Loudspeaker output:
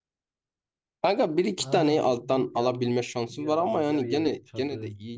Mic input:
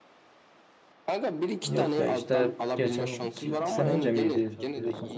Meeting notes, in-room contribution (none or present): present